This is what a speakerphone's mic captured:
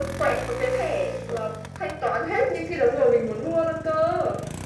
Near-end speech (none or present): none